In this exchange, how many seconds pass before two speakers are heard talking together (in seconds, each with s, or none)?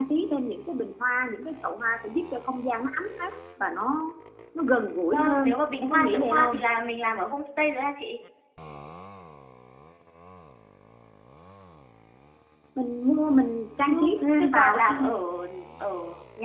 5.1 s